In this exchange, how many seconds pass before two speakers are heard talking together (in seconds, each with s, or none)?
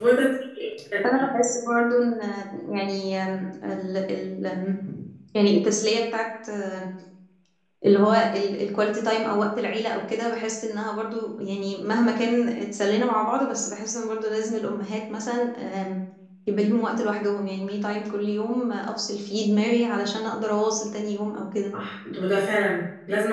none